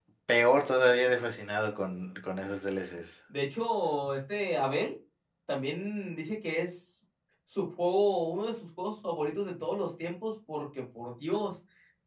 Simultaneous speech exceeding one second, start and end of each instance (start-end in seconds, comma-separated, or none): none